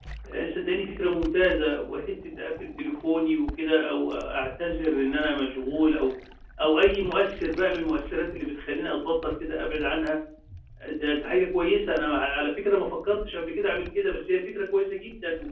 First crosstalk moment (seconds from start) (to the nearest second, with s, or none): none